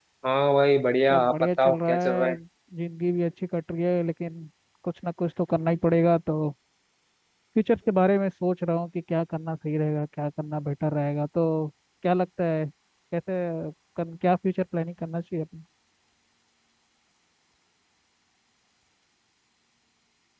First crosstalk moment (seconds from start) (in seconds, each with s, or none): 1.1 s